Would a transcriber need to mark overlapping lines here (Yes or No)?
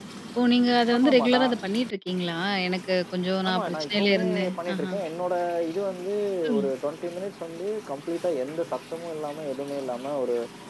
Yes